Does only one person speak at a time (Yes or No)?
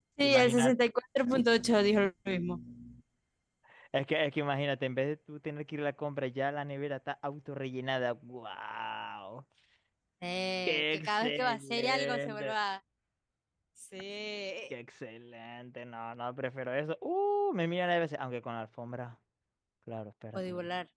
No